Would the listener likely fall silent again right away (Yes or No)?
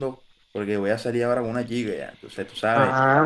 No